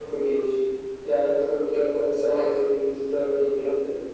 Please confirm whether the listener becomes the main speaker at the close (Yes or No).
Yes